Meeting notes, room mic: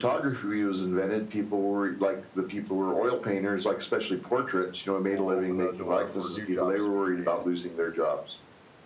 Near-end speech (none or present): present